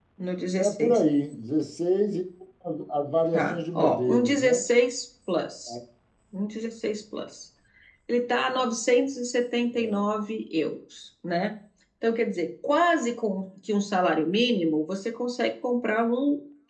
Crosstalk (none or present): present